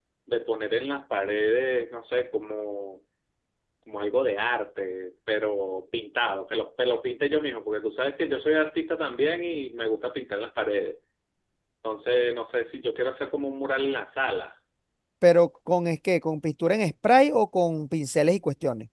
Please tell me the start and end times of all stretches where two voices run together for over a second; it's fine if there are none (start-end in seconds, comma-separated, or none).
none